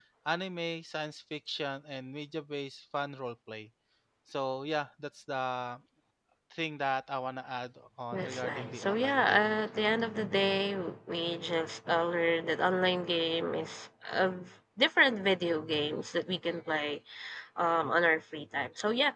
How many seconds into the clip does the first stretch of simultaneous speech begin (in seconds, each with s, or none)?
8.1 s